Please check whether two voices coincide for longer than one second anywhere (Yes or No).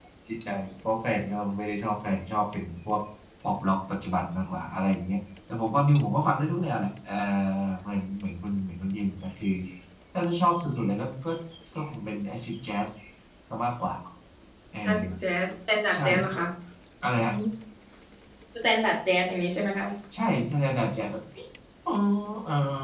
No